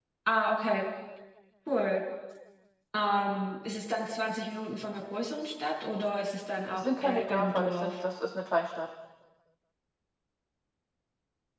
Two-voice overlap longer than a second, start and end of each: 6.7-8.0

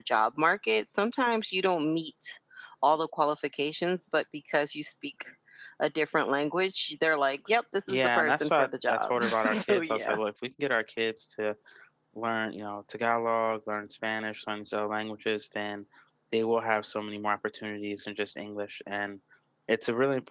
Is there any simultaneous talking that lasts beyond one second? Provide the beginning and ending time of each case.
7.9-10.2

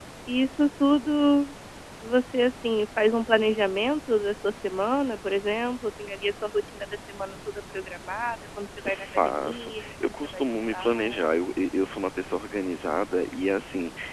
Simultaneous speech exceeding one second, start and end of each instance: 8.9-11.2

